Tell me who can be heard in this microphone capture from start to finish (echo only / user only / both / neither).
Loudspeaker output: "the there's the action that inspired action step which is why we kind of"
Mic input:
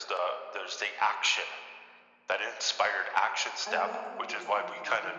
both